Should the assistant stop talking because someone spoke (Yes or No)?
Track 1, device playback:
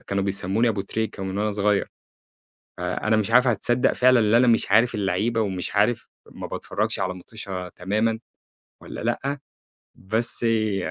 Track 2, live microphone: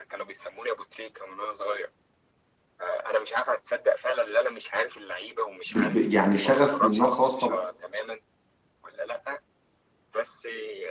Yes